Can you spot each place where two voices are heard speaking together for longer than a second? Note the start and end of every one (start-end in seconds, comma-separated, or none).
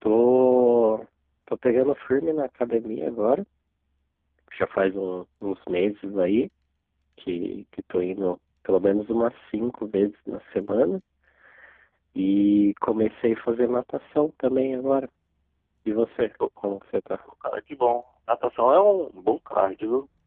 none